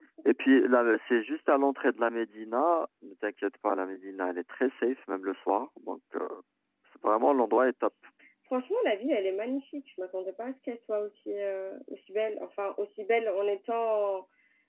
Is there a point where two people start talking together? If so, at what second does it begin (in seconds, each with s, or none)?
none